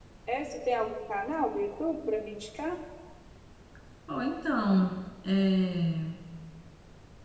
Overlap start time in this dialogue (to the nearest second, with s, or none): none